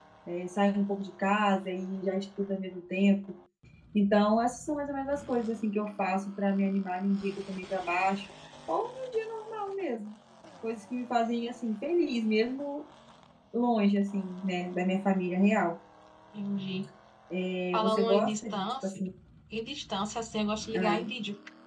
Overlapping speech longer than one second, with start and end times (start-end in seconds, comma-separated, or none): 17.7-19.0